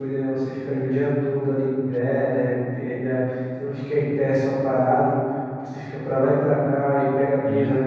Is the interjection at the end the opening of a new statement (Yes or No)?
No